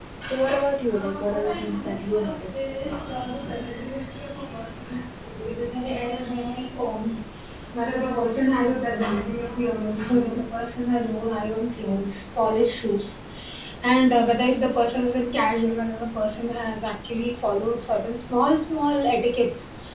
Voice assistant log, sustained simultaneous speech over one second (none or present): present